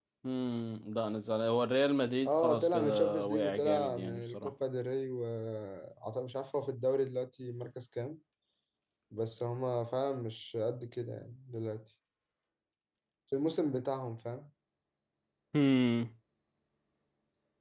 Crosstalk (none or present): present